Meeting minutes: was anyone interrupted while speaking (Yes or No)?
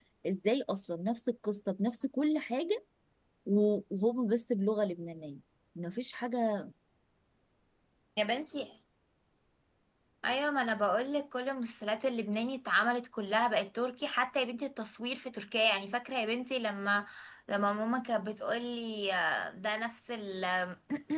No